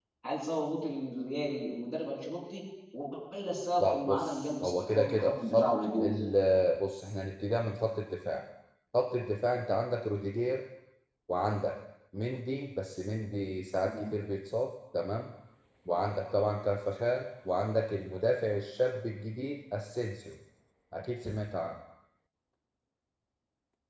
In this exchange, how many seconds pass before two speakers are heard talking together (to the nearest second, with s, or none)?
4 s